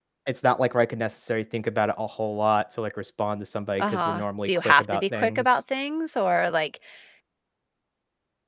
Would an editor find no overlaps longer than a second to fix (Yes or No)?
No